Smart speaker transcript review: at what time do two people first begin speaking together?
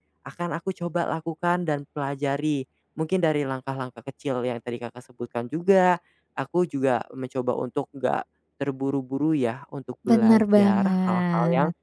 10 s

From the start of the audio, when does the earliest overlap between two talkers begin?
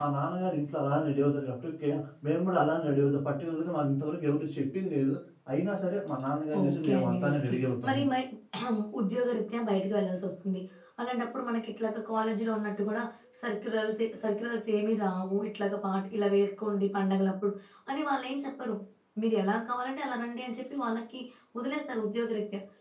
7 s

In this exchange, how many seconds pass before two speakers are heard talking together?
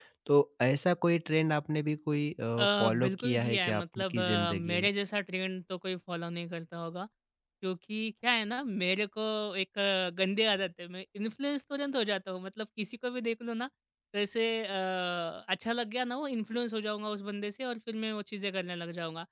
3 s

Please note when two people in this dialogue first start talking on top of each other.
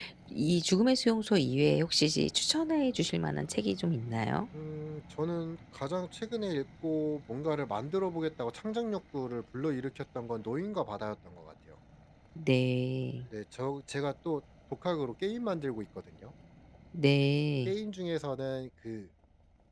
none

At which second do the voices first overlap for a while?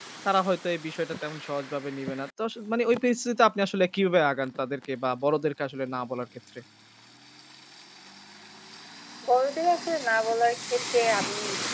none

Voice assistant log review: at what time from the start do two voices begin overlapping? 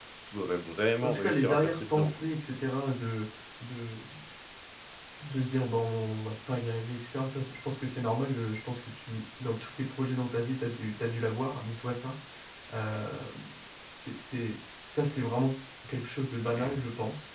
1 s

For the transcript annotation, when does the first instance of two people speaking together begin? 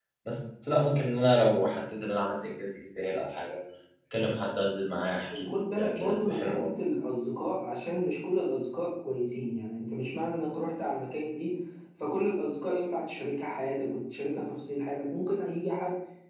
5 s

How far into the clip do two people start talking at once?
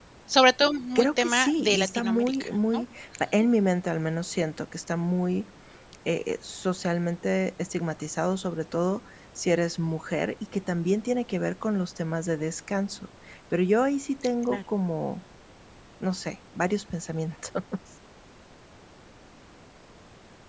1 s

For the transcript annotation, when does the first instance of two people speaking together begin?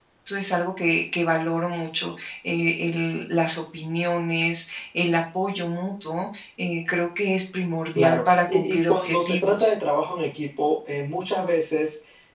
8 s

